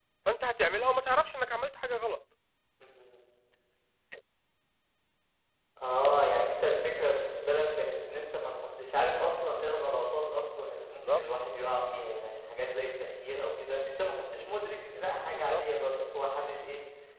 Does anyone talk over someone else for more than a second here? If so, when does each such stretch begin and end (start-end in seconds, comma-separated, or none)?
none